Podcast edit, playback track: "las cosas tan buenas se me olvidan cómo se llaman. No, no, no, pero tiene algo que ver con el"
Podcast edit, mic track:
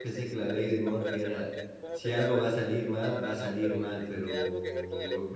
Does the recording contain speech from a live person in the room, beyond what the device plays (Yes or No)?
Yes